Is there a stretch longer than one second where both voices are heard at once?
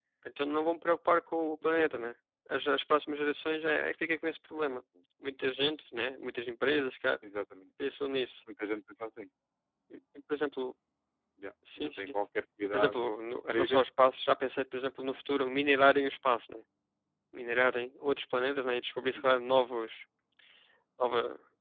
No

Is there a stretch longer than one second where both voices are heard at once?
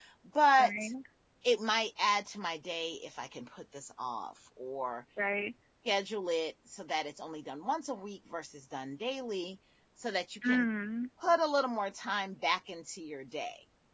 No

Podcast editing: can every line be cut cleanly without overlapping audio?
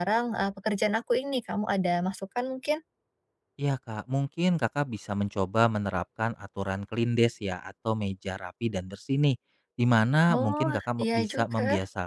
No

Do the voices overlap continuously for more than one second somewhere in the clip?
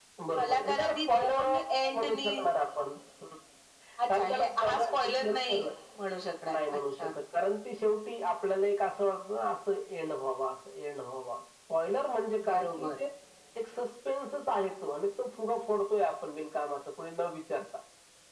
Yes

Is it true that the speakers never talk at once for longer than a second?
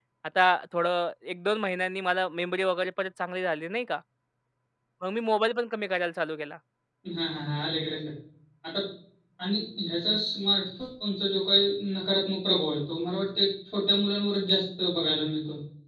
Yes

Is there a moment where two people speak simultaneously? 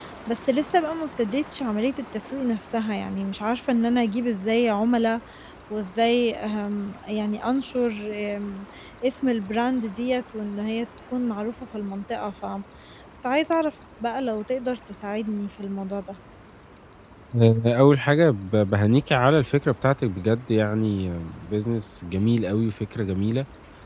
No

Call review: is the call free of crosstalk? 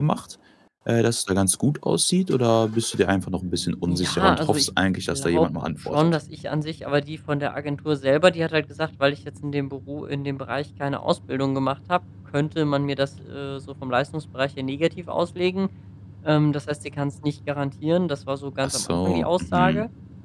No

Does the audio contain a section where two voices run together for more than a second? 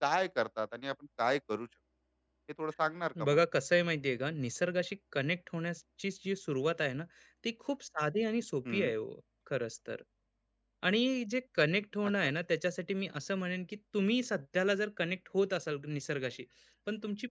No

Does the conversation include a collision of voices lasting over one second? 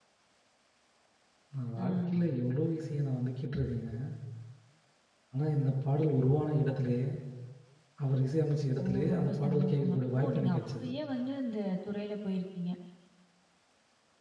Yes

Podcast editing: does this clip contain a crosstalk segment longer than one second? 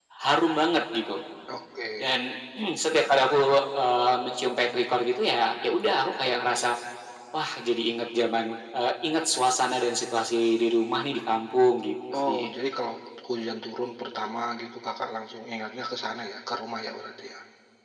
No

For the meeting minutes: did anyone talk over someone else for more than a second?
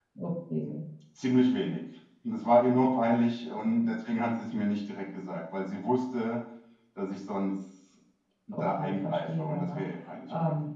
Yes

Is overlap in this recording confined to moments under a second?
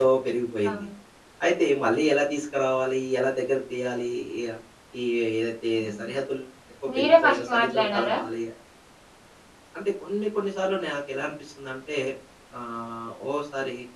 No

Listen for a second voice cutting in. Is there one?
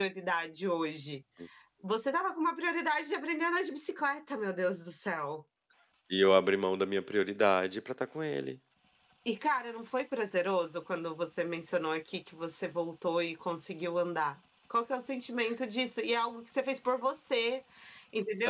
No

